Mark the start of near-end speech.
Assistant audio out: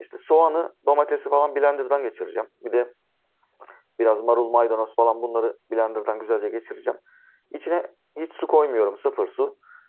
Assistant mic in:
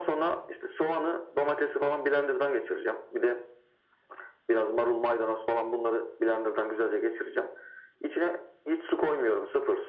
none

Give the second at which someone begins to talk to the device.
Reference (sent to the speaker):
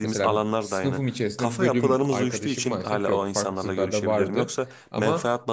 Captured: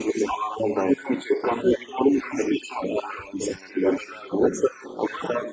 none

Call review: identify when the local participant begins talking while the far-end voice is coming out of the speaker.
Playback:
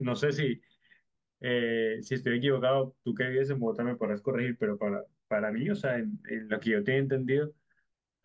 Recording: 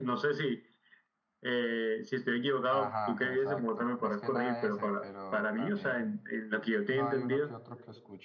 3 s

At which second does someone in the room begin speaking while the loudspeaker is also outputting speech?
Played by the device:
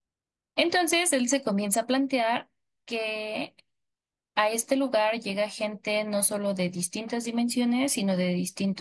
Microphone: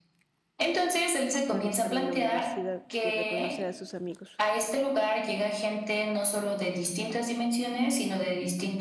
1 s

